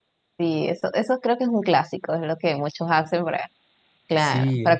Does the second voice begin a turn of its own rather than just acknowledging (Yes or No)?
No